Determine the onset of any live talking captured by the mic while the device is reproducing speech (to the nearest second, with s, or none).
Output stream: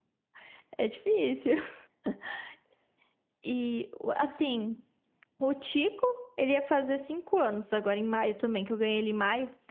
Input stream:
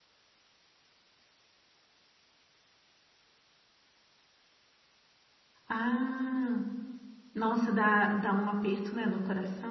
6 s